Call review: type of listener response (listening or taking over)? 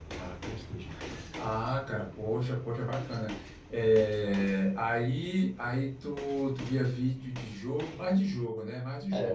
taking over